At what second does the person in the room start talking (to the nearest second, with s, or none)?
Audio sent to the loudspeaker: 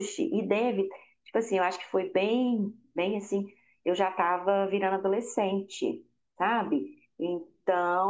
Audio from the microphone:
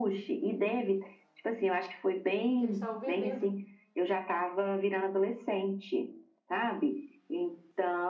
3 s